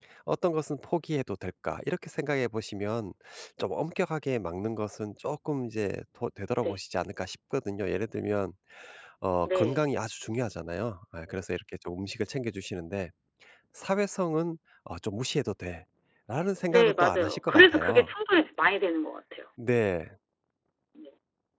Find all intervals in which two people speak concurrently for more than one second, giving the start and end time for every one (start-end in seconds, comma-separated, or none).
16.7-18.1